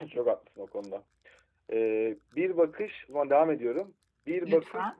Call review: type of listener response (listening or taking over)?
listening